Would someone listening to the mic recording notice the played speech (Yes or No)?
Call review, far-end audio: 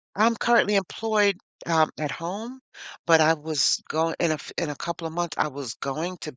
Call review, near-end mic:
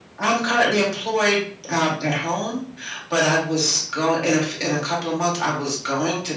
Yes